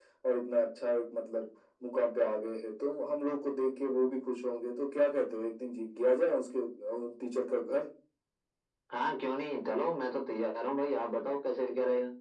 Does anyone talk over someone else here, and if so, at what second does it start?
none

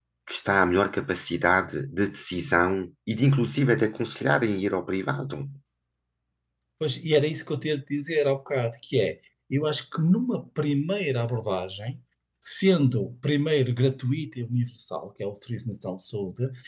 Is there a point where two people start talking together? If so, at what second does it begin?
none

